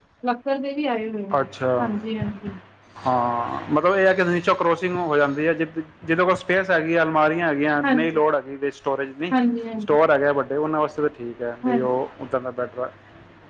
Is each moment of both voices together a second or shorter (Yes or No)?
Yes